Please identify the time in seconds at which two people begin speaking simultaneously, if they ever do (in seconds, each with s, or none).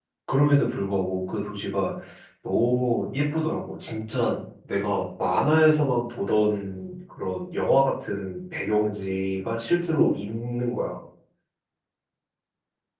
none